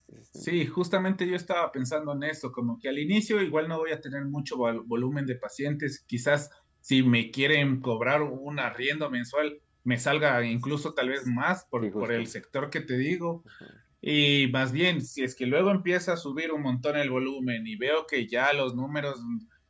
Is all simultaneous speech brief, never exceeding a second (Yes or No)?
Yes